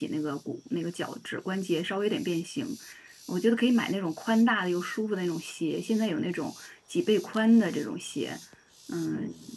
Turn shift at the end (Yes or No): No